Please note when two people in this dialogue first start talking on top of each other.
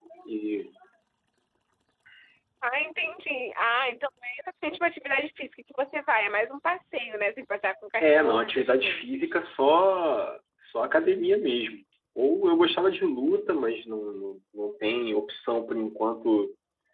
8.0 s

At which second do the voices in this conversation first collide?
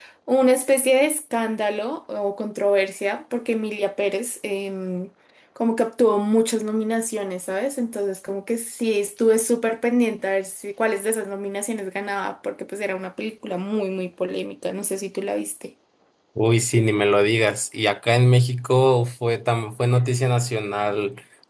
none

